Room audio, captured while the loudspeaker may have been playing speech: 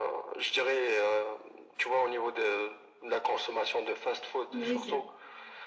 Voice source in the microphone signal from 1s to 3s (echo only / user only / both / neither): echo only